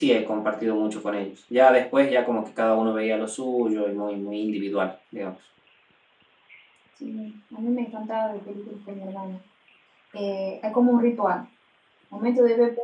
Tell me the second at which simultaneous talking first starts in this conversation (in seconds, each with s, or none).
none